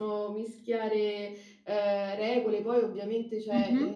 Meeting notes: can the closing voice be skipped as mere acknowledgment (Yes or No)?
Yes